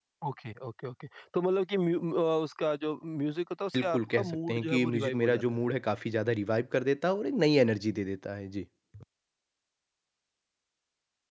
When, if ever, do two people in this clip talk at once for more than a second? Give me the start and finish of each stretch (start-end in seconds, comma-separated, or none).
3.8-5.6